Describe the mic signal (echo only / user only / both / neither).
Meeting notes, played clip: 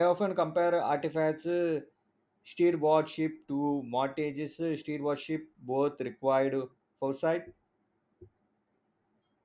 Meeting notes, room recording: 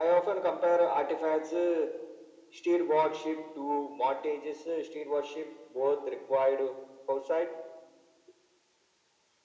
echo only